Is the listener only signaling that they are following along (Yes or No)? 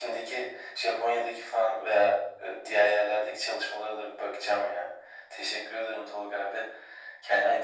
No